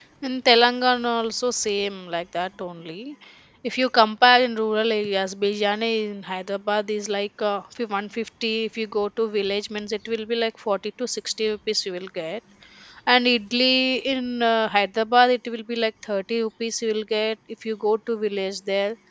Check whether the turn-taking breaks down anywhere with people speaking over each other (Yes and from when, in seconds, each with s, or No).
No